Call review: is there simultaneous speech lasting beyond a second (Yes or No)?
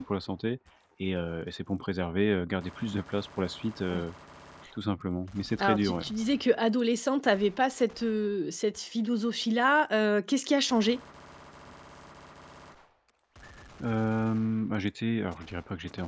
No